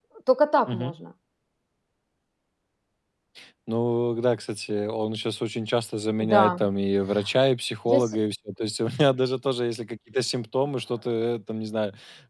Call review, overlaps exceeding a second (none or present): none